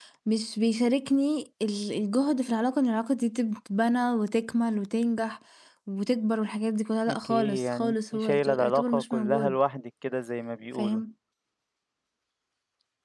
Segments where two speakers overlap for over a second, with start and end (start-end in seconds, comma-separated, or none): 7.1-9.6